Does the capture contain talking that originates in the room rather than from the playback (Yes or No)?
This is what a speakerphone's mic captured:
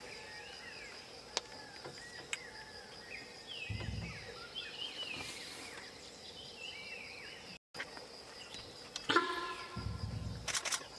No